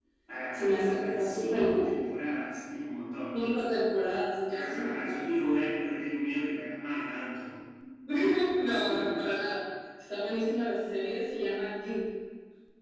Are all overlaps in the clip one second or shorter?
No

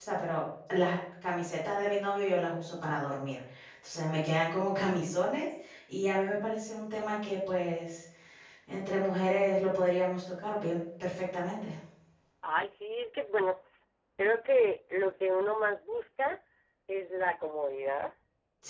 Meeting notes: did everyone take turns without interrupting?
Yes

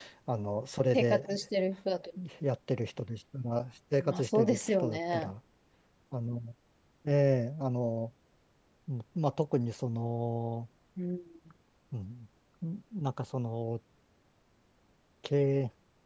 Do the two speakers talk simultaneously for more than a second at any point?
Yes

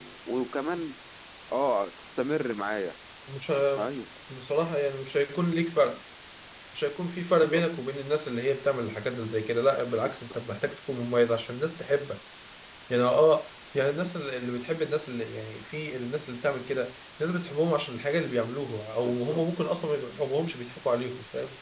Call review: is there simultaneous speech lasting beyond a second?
No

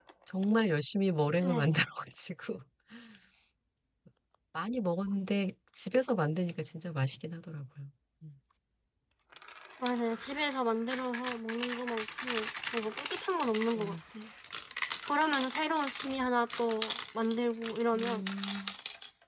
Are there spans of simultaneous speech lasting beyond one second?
No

